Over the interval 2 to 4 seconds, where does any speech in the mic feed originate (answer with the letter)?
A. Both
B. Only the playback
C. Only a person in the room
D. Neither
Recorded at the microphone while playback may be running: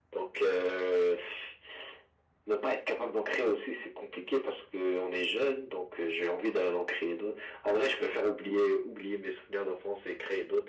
B